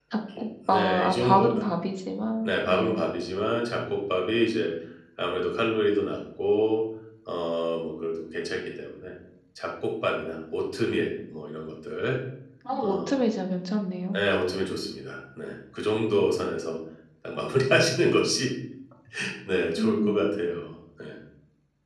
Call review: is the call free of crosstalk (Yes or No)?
No